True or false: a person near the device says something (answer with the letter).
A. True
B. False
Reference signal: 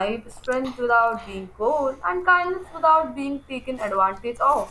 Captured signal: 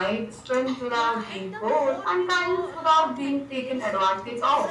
A